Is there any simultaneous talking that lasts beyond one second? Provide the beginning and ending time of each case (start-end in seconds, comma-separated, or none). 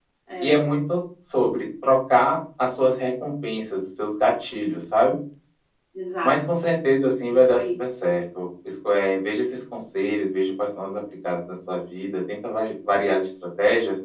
none